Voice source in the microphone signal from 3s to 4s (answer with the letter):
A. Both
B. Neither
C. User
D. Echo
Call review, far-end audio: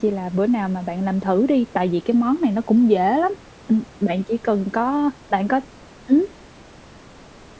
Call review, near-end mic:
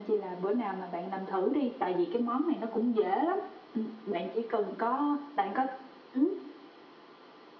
D